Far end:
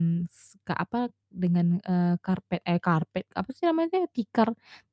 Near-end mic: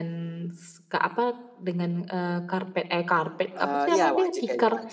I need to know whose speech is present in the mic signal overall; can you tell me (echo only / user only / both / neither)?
both